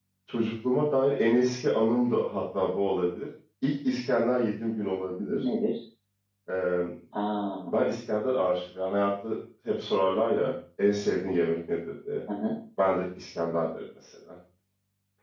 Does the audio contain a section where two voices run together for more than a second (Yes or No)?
No